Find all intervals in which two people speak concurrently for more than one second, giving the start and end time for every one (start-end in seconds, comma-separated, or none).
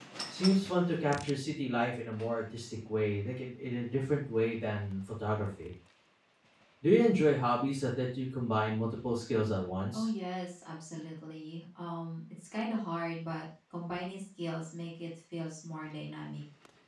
none